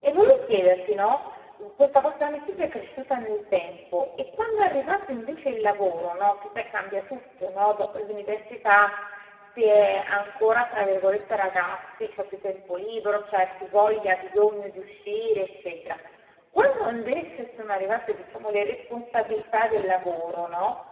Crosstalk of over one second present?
No

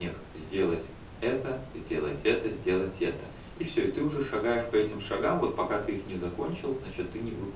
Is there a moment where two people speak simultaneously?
No

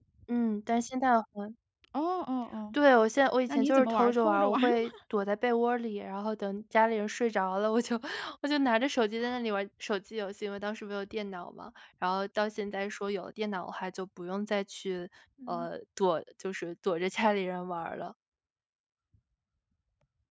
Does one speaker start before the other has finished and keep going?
Yes, from 3.5 s

